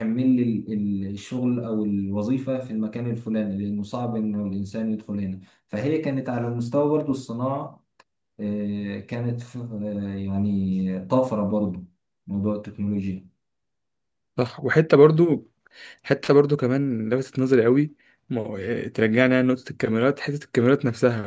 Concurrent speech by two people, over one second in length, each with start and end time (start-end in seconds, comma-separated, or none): none